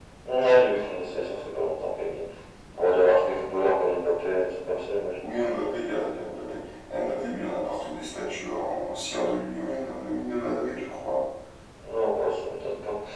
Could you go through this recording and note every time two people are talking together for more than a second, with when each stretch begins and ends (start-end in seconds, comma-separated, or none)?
none